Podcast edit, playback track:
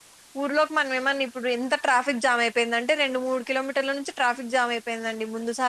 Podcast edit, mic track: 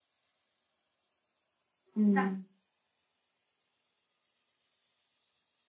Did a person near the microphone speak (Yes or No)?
Yes